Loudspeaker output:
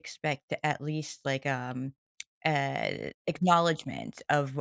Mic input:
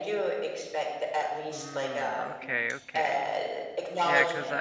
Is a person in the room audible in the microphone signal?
Yes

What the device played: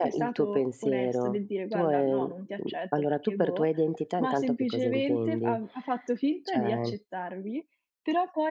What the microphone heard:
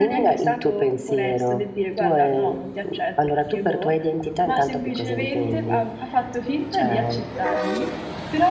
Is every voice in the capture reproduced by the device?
Yes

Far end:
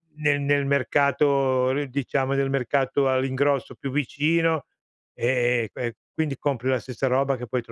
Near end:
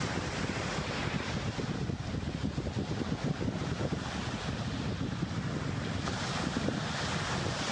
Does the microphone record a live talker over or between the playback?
No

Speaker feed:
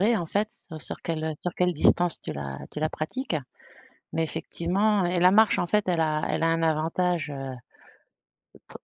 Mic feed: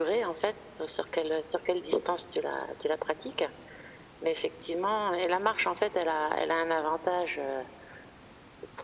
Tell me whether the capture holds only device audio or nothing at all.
Yes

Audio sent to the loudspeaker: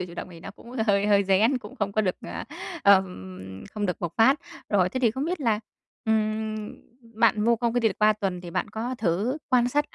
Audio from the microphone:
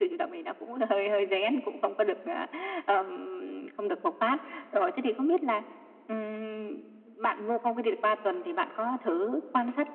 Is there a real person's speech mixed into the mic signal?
No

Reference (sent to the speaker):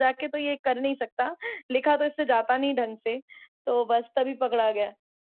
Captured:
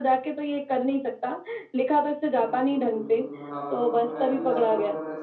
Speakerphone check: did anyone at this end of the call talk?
Yes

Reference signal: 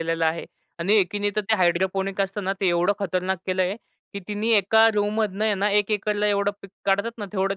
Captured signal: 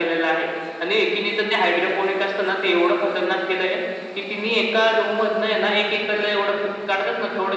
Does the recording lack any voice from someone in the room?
Yes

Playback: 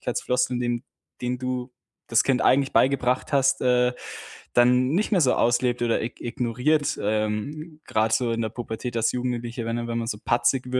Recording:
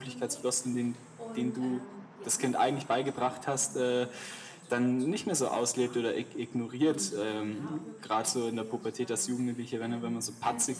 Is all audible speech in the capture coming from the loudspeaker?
No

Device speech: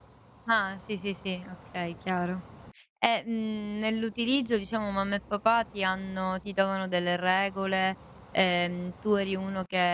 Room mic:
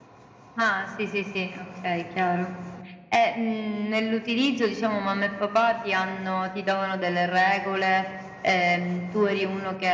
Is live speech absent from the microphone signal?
Yes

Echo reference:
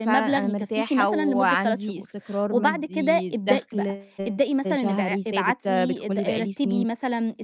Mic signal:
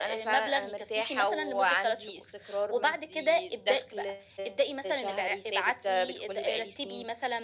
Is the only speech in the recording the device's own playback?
Yes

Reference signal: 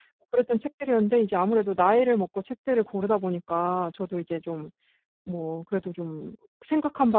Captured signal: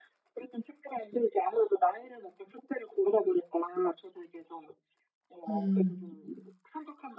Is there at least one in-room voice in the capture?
Yes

